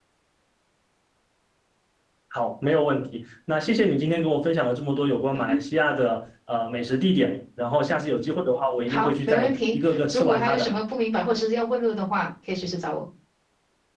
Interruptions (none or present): present